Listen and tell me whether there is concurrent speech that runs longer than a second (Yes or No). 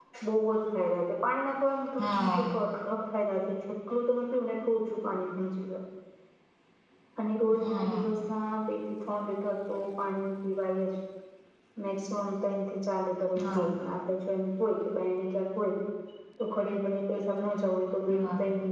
No